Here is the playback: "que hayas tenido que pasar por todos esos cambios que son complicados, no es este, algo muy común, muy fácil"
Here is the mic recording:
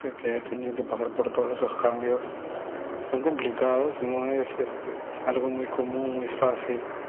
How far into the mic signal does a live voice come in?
none

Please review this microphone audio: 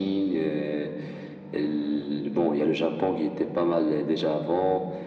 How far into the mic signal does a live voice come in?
none

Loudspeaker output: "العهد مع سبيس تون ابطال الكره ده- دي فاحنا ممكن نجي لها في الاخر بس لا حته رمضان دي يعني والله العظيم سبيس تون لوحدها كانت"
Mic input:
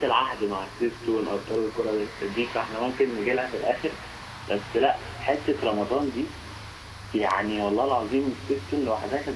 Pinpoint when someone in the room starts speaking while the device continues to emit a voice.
none

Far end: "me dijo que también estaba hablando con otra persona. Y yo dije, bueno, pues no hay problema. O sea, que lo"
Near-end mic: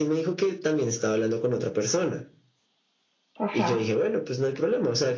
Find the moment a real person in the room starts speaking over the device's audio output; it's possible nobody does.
3.4 s

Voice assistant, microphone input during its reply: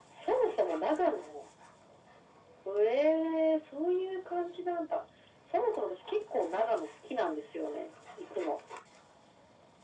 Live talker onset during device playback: none

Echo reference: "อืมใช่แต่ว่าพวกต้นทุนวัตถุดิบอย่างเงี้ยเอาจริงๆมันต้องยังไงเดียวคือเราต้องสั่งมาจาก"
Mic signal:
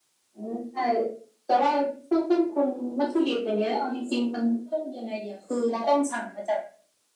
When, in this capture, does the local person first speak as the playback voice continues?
none

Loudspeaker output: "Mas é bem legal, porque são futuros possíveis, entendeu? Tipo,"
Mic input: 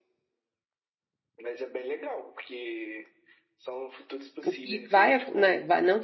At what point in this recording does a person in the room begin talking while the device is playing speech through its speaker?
4.4 s

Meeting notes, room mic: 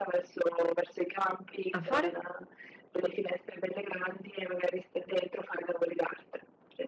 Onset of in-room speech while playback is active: 1.7 s

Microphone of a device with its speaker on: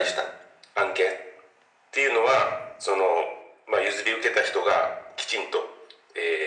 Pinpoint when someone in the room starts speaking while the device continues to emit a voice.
none

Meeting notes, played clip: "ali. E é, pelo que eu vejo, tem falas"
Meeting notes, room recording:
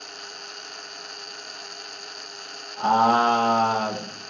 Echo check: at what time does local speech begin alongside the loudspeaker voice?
2.7 s

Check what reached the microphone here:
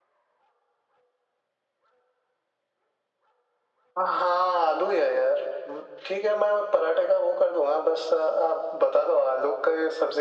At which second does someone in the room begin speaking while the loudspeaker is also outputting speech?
none

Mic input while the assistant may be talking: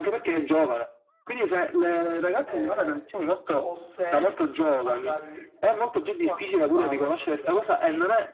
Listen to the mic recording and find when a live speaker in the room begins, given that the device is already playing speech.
2.4 s

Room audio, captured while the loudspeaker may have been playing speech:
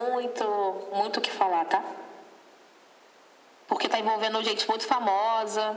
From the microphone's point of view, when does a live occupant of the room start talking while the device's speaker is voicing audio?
none

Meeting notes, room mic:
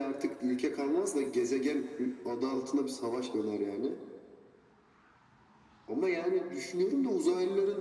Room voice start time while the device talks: none

